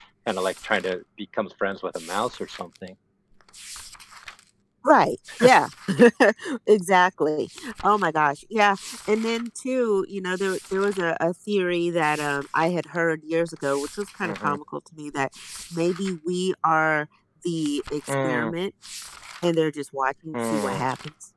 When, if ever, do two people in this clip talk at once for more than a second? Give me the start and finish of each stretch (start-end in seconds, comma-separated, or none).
none